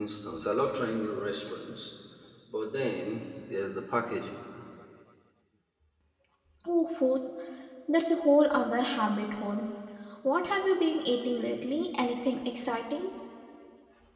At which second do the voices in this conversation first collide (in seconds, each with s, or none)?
none